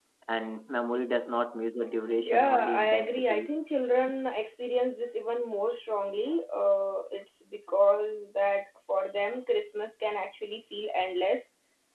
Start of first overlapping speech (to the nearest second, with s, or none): 2 s